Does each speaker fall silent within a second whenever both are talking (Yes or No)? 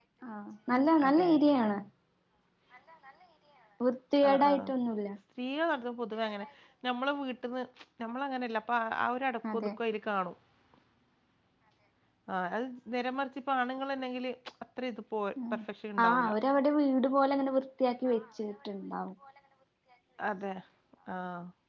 Yes